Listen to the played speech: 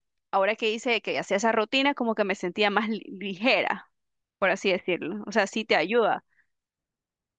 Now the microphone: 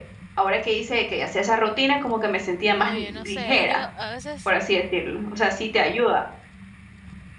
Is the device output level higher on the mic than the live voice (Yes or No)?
Yes